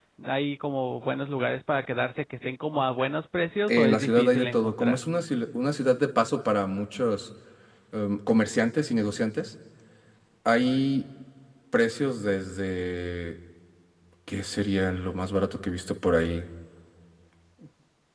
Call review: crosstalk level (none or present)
present